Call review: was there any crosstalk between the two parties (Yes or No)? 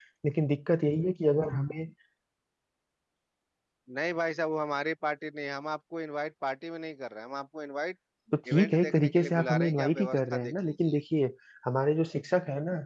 Yes